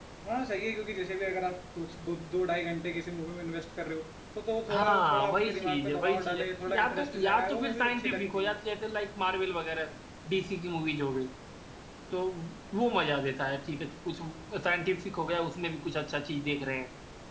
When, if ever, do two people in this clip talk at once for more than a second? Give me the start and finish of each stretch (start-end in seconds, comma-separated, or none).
4.7-8.5